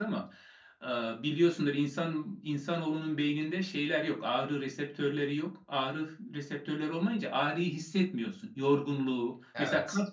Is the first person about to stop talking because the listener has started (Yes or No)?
No